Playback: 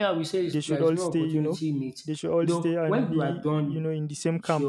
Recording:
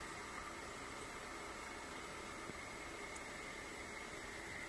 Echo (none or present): none